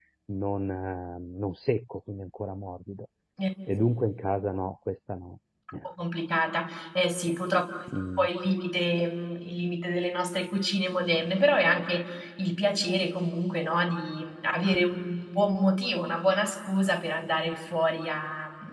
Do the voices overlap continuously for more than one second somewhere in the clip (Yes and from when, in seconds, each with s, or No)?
No